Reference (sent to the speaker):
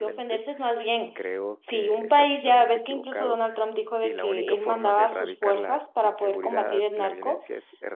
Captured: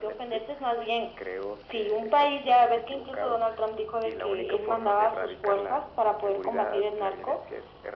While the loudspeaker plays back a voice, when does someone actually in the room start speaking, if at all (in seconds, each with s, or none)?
none